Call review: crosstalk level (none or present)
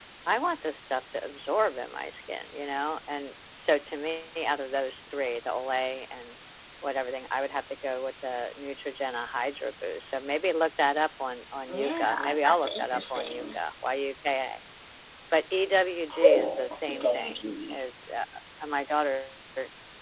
present